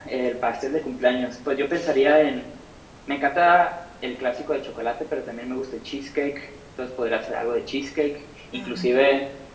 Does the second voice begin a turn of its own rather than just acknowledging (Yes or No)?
No